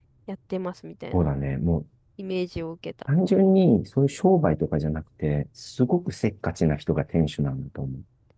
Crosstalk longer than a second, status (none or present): none